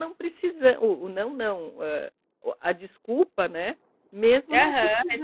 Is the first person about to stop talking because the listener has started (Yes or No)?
Yes